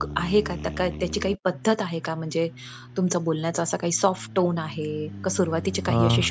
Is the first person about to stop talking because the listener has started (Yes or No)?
No